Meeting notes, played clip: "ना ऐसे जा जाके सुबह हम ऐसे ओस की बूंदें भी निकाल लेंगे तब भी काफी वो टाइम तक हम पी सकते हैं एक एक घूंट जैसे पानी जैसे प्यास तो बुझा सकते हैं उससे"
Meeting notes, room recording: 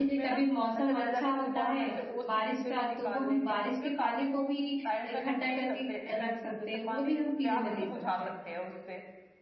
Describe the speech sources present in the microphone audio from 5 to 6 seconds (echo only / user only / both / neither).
both